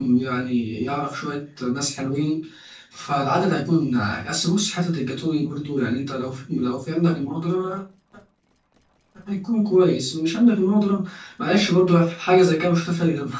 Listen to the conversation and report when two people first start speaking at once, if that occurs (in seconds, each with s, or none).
none